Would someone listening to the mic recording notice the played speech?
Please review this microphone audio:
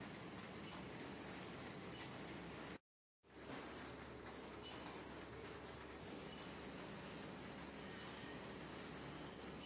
No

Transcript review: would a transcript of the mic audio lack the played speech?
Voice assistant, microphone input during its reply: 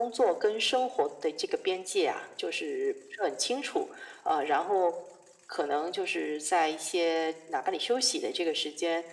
No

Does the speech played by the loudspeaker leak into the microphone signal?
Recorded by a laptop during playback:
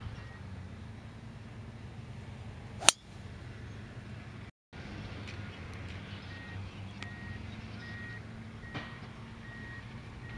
No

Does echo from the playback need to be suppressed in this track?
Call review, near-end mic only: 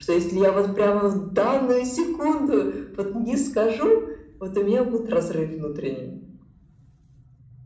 Yes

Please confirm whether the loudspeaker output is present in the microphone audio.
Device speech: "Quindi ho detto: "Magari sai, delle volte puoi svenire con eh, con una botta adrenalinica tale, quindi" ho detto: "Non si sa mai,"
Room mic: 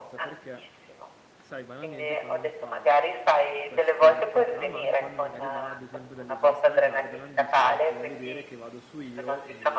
Yes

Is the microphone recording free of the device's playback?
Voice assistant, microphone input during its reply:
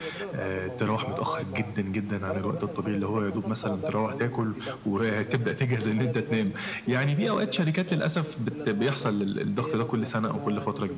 No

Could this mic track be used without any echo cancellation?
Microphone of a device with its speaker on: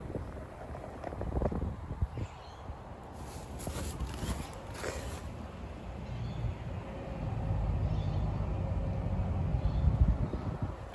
Yes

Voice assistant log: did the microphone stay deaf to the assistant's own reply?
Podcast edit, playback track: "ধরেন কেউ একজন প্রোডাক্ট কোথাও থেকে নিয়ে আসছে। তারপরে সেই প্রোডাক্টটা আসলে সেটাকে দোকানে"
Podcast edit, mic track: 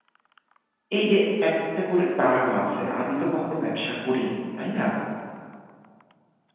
Yes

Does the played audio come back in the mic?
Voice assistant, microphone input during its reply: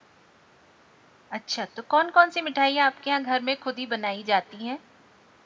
No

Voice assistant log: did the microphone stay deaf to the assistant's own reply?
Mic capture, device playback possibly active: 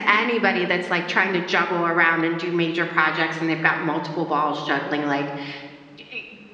No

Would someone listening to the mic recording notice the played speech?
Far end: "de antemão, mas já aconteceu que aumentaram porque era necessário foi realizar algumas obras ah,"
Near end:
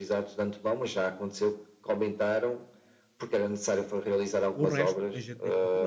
Yes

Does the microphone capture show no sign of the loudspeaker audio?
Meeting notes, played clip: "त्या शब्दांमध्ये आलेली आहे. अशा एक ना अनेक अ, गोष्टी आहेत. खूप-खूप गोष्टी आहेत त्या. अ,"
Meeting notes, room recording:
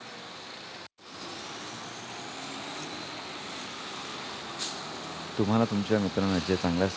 Yes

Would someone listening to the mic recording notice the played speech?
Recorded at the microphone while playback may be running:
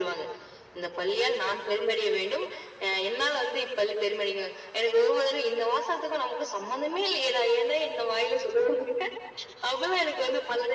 Yes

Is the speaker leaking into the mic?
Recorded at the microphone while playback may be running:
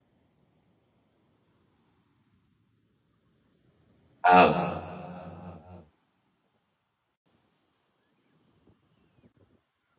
No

